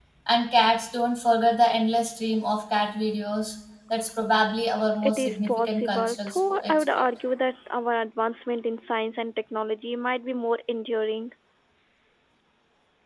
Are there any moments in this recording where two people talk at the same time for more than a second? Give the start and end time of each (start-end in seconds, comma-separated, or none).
5.0-7.0